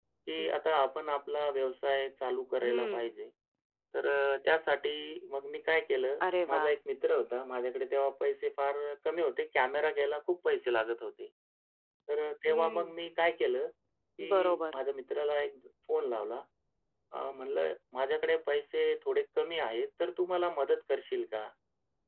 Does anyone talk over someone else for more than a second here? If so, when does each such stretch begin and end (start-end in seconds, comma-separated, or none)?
none